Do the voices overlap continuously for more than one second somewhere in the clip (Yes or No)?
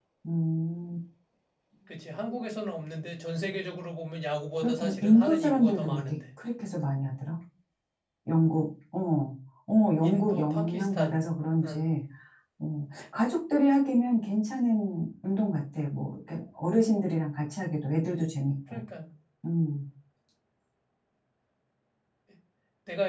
Yes